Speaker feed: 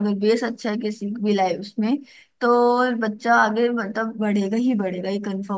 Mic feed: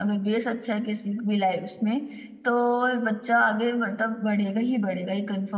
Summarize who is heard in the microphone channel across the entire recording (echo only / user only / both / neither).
echo only